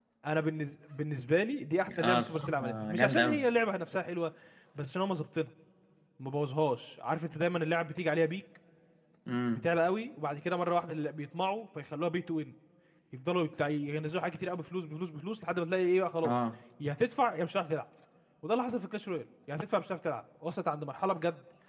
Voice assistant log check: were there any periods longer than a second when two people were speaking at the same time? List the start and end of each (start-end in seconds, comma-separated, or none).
2.0-3.4